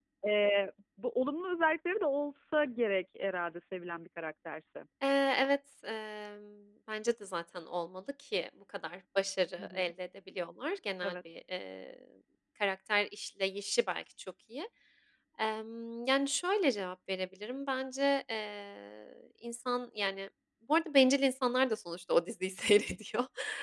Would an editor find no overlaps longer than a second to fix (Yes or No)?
Yes